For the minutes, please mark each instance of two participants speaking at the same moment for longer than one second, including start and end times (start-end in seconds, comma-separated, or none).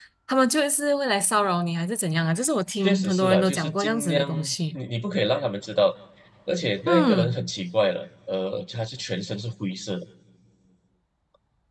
2.8-4.3